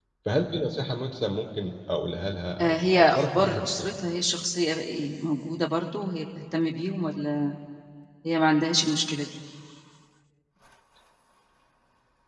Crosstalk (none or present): present